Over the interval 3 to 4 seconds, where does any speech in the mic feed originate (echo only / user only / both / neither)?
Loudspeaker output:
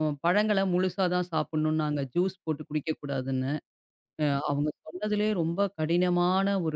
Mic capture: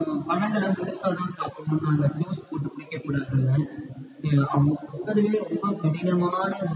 echo only